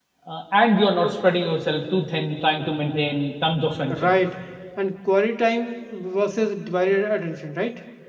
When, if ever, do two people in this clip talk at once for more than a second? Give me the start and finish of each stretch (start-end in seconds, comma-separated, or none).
none